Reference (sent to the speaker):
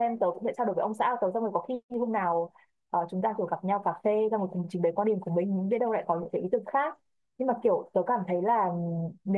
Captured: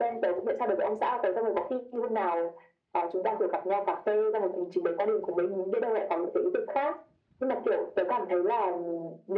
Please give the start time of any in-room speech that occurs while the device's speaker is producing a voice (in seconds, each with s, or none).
none